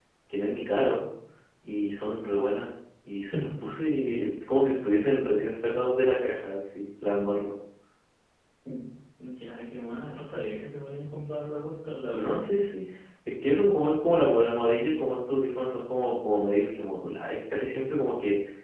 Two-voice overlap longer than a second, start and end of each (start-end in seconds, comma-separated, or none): none